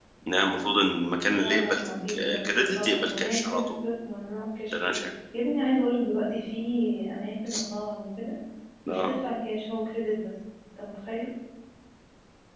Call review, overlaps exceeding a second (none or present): present